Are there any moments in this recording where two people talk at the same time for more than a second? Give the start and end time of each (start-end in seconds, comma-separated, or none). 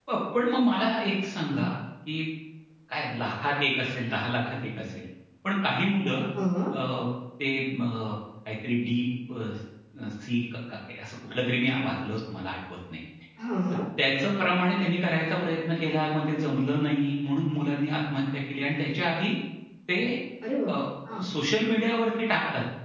none